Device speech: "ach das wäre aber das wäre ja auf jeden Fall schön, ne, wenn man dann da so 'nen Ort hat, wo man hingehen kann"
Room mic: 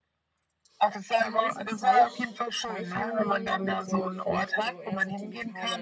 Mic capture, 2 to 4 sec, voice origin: both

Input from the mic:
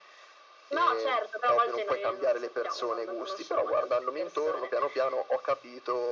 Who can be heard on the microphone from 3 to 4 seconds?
echo only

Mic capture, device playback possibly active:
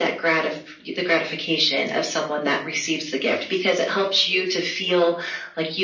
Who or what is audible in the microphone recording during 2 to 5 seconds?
echo only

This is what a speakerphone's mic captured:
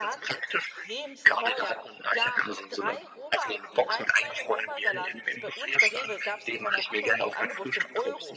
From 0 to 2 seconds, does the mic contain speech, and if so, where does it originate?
both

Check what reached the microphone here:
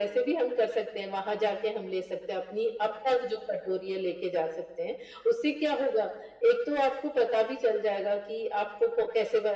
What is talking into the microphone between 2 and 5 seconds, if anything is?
echo only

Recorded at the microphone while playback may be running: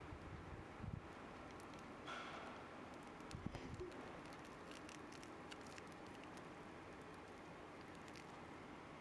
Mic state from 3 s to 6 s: neither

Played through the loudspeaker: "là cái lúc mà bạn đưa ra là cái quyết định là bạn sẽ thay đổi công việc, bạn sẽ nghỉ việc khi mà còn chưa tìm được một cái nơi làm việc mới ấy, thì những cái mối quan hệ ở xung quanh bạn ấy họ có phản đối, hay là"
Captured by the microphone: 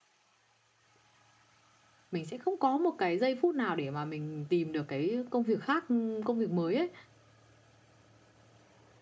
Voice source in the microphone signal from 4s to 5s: user only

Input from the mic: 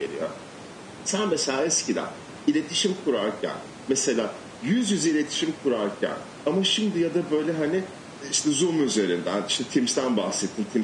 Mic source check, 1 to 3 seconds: echo only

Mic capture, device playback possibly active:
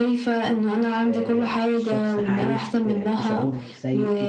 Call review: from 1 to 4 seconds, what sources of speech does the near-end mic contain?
both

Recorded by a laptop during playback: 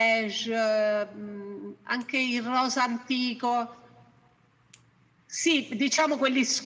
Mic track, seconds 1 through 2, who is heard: echo only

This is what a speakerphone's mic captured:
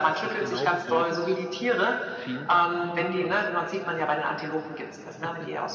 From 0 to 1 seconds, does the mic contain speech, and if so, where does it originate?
both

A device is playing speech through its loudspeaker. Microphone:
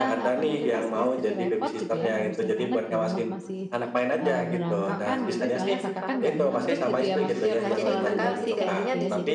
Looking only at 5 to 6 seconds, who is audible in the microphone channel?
both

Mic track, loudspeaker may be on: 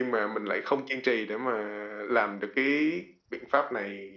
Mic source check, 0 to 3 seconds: echo only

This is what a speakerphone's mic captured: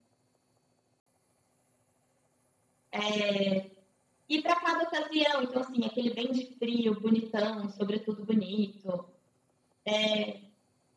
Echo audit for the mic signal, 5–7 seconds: echo only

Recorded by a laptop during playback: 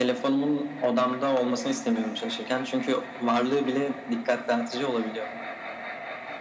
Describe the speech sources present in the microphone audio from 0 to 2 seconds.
echo only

